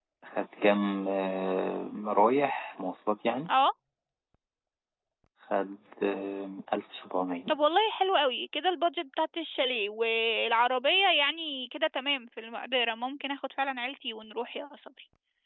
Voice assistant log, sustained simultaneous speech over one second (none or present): none